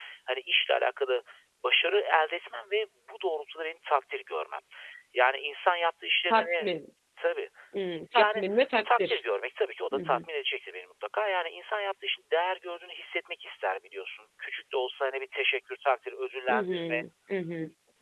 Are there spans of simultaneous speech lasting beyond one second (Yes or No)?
No